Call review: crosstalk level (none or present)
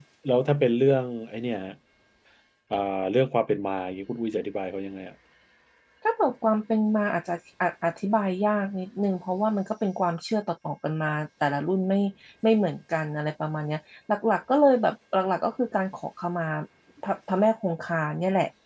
none